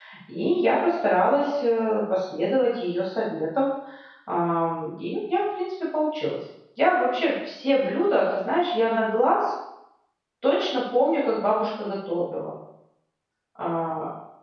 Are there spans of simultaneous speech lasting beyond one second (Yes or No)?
No